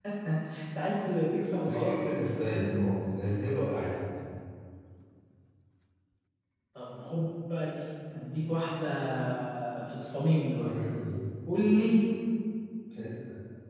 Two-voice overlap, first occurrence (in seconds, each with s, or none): 1.6 s